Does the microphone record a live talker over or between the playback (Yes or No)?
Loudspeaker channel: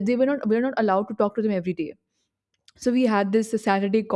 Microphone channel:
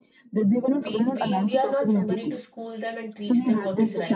Yes